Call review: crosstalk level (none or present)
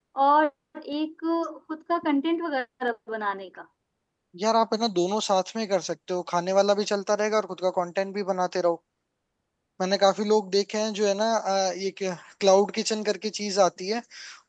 none